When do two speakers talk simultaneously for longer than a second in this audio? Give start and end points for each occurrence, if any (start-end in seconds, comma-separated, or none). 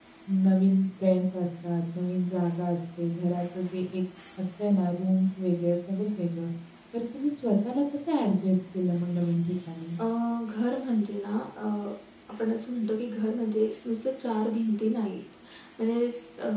none